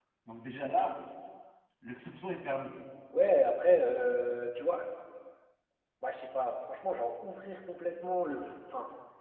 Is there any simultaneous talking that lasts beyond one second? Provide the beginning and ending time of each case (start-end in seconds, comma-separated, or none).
none